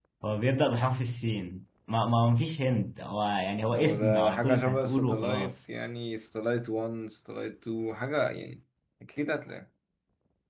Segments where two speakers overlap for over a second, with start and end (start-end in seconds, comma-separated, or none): 3.8-5.5